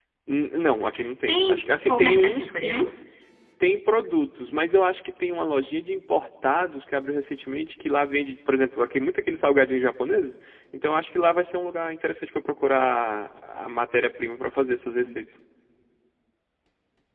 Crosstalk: present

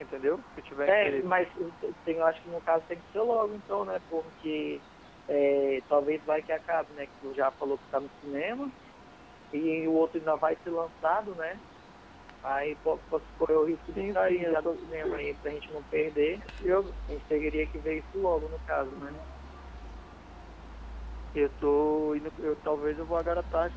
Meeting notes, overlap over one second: present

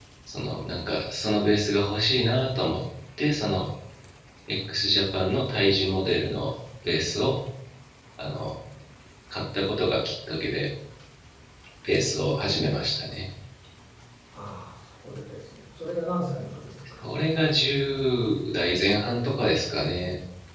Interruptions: none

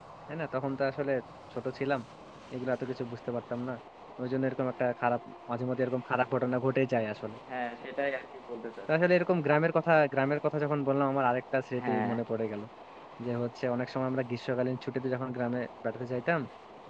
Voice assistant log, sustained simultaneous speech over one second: none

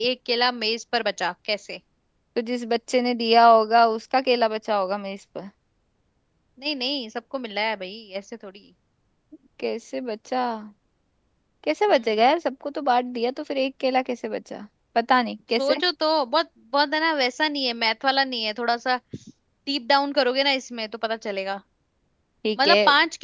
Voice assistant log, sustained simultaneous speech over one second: none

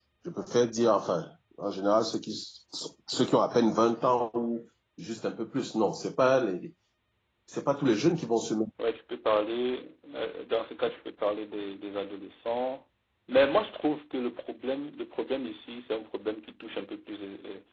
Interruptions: none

